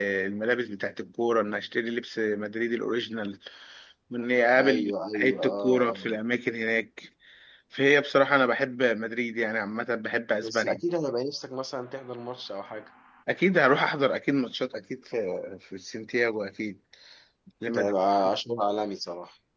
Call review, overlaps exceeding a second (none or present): present